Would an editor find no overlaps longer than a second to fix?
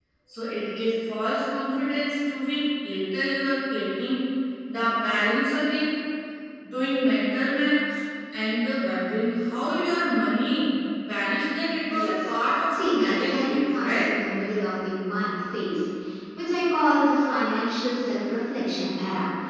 No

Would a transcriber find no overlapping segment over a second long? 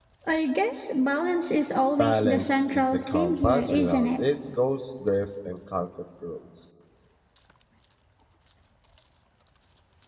No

